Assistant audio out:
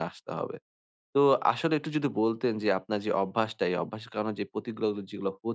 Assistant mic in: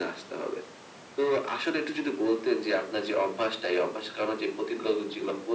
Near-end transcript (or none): none